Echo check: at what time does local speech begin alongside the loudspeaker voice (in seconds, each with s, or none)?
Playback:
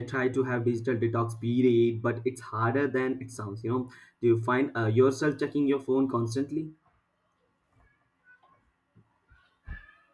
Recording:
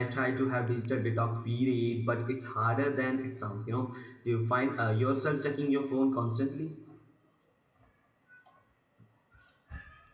none